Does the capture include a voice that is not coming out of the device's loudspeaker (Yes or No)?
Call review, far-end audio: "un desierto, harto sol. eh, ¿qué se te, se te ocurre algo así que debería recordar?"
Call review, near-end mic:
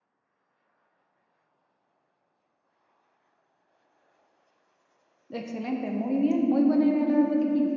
Yes